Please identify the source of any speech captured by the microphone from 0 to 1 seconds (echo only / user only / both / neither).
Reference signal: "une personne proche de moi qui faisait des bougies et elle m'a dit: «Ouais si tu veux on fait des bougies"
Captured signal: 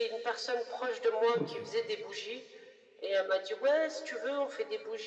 echo only